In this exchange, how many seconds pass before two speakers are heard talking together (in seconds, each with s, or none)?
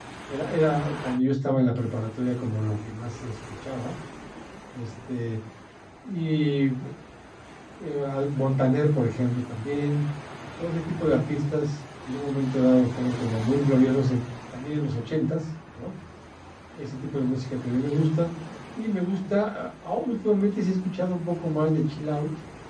none